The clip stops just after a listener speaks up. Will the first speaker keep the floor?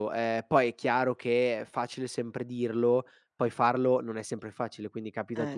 Yes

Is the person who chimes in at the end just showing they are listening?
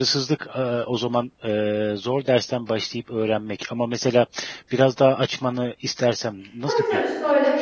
No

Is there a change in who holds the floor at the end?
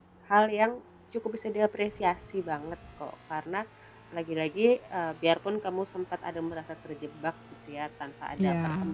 No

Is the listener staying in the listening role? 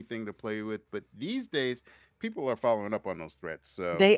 Yes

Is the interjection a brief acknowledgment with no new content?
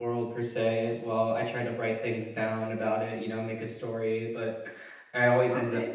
Yes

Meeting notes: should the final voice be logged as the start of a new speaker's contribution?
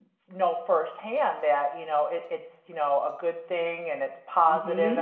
Yes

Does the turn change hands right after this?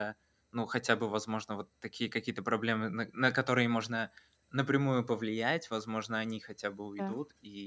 No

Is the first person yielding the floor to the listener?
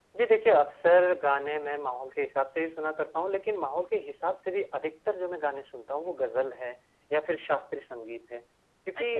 No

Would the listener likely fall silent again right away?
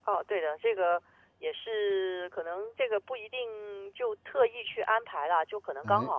Yes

